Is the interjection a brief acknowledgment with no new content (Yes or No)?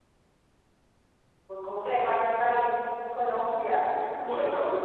No